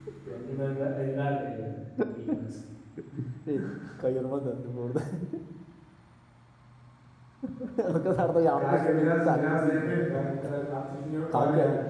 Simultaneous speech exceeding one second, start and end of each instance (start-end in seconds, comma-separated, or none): 8.6-10.2